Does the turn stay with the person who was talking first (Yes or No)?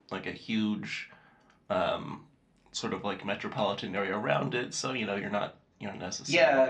No